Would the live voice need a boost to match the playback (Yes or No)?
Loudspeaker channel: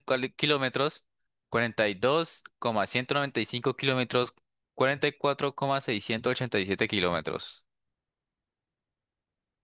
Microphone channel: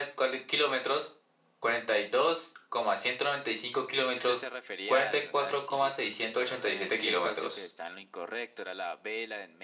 Yes